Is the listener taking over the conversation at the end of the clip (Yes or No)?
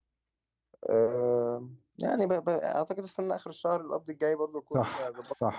Yes